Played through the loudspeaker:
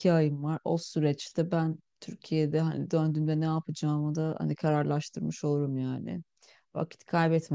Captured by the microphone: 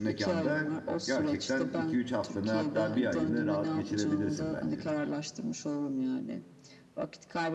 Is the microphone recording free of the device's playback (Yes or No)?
No